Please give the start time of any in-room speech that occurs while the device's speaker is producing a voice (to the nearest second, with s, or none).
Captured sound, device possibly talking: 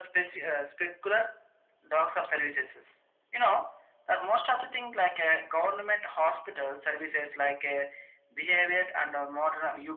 none